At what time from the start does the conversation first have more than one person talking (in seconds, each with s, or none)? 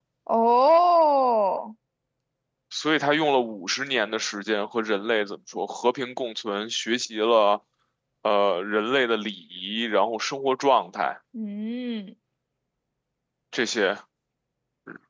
none